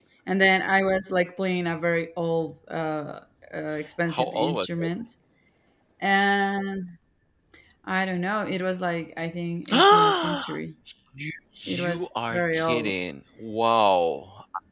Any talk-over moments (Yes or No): Yes